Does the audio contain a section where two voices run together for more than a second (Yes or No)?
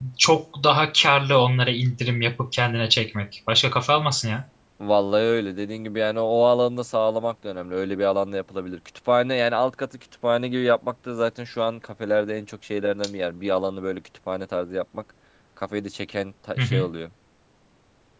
No